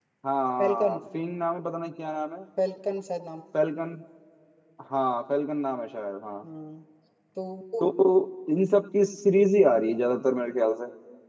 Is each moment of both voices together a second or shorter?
Yes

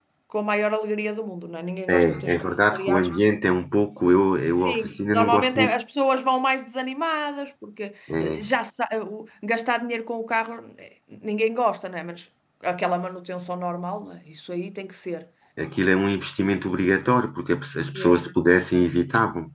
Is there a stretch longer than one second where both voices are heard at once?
Yes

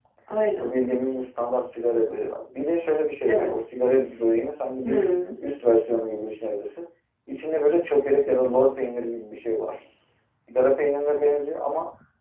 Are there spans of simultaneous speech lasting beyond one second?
No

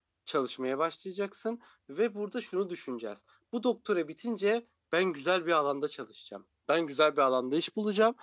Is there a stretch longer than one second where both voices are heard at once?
No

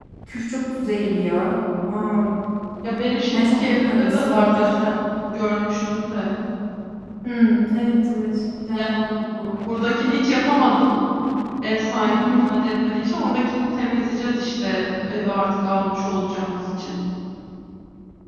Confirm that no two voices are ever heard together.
No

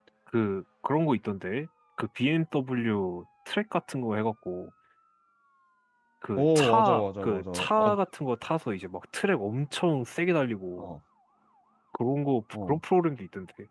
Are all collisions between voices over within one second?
No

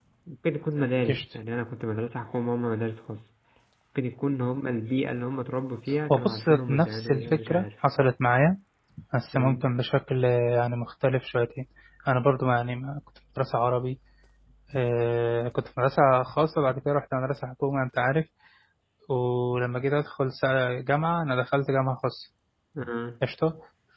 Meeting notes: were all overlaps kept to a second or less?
No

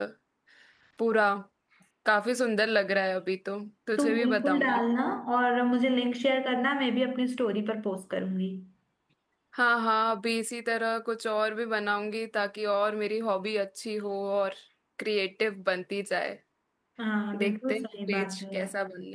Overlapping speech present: Yes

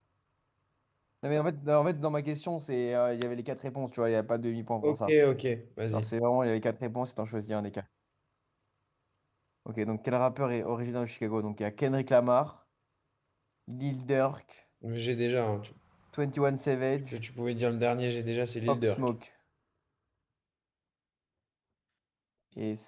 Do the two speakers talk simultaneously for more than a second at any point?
No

